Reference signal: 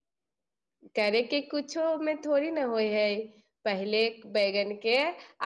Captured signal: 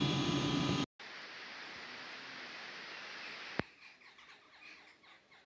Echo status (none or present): none